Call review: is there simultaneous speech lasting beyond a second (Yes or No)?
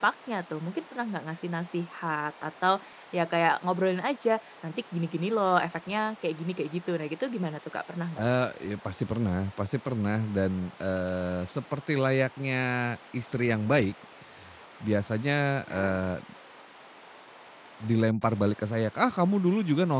No